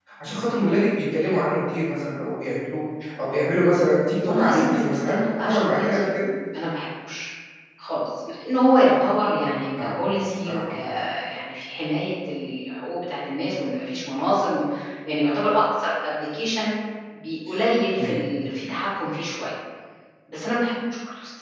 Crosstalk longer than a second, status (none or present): present